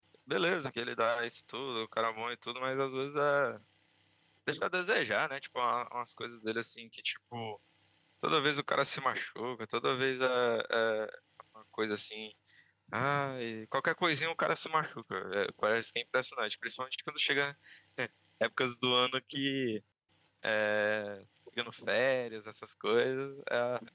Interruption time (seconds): none

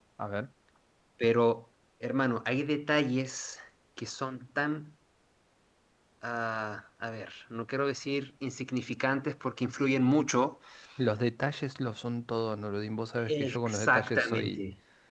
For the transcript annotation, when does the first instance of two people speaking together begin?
13.3 s

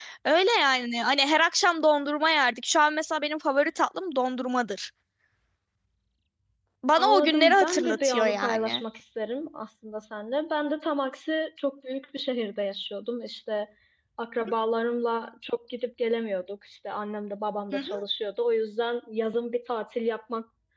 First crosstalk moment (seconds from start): 7.0 s

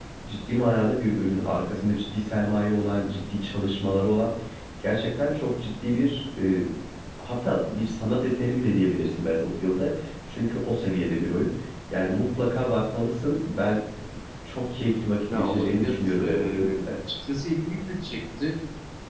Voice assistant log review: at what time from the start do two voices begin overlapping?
15.3 s

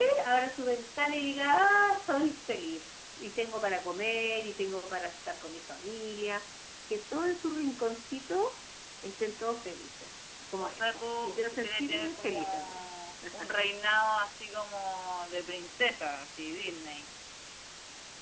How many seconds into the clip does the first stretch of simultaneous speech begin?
10.6 s

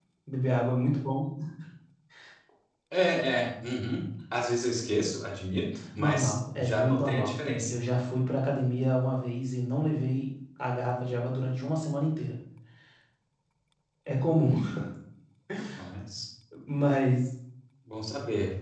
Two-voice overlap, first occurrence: 6.0 s

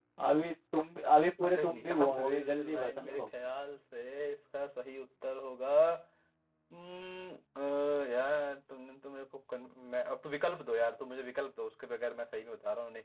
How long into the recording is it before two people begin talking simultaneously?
1.4 s

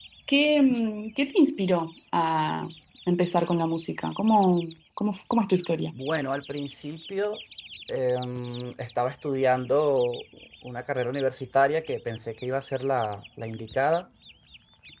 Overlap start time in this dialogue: none

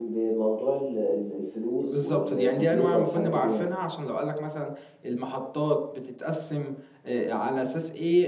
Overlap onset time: 1.8 s

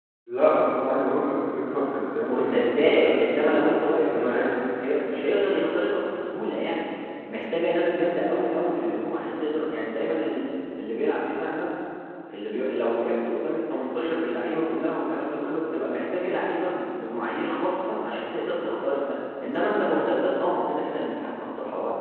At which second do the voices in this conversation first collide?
2.3 s

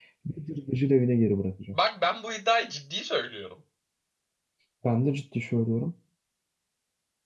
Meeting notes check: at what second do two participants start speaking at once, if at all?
none

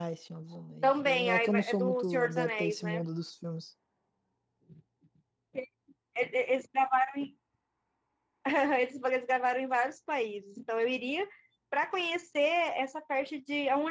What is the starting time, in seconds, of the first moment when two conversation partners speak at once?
0.8 s

